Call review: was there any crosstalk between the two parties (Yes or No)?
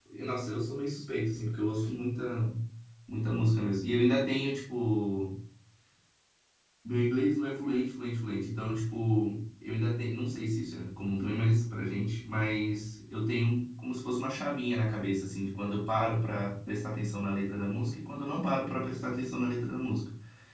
No